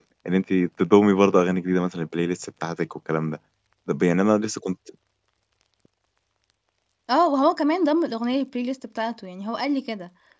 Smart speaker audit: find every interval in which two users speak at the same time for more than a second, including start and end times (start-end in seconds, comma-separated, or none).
none